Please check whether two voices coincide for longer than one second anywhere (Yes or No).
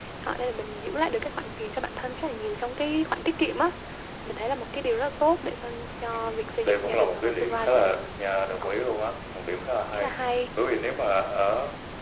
Yes